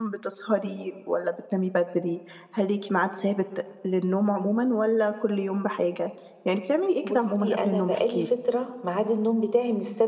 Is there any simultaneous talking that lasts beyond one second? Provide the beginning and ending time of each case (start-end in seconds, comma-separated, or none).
7.0-8.3